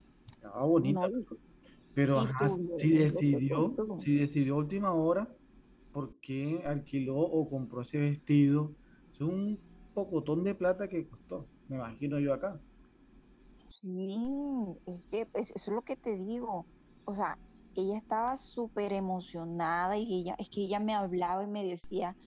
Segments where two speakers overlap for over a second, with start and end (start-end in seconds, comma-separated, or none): 2.1-3.8